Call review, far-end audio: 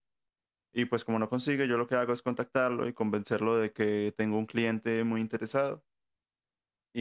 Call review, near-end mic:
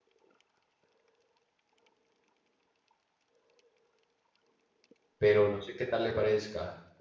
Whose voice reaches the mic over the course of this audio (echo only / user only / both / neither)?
user only